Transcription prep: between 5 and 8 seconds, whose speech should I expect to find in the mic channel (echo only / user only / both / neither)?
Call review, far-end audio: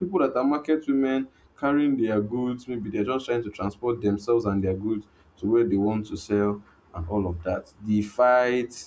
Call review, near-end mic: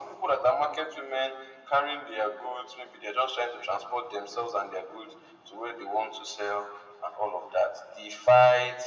echo only